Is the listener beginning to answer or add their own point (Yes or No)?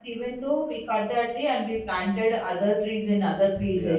No